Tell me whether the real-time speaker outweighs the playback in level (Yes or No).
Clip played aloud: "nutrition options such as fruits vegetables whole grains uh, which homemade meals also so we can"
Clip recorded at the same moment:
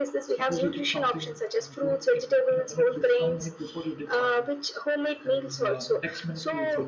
No